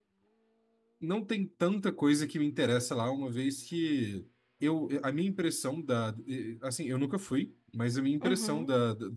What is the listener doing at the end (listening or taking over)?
listening